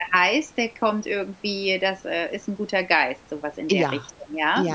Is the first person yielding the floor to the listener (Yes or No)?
Yes